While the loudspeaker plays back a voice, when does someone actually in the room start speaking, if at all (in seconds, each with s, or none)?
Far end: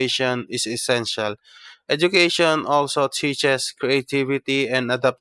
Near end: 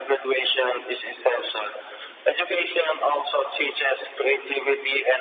none